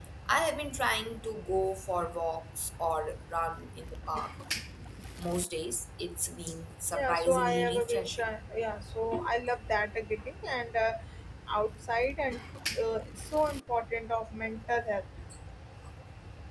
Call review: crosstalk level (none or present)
present